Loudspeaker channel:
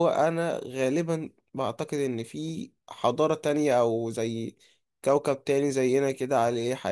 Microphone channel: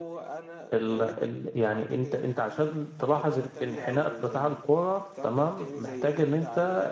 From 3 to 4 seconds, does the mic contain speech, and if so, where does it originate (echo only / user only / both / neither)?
both